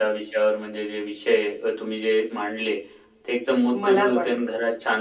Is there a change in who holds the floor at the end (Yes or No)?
No